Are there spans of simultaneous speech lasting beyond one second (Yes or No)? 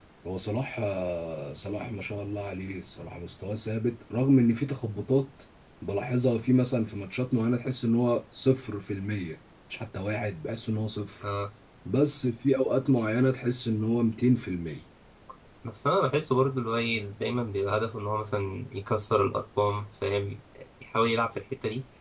No